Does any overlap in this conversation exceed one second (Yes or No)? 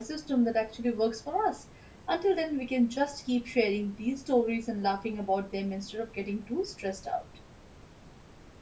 No